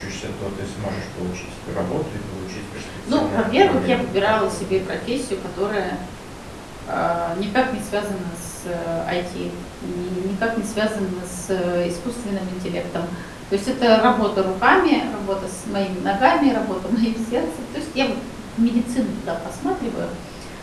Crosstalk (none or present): present